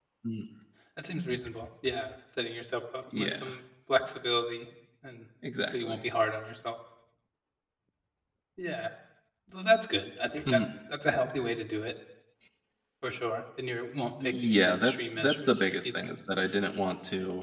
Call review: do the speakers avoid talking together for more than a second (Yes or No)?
No